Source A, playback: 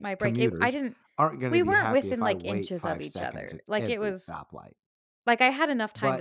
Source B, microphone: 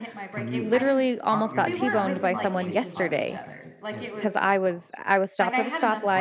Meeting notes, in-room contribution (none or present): present